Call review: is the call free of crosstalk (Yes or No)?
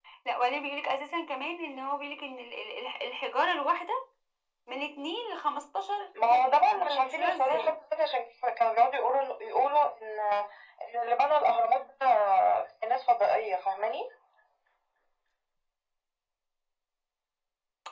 No